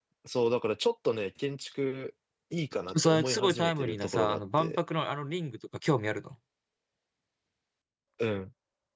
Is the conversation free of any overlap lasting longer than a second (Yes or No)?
No